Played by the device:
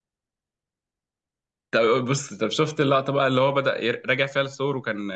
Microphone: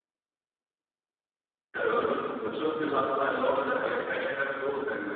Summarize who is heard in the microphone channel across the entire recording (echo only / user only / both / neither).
echo only